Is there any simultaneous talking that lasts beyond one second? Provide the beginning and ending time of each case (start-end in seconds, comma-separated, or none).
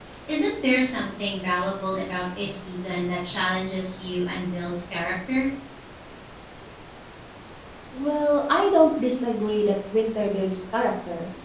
none